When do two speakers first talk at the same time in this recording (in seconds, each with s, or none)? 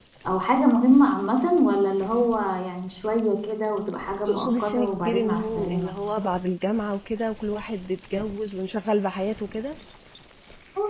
4.3 s